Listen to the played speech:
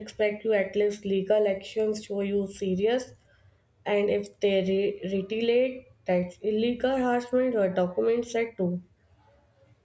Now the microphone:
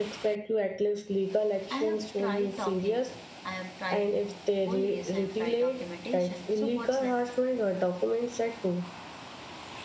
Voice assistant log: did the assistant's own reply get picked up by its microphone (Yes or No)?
Yes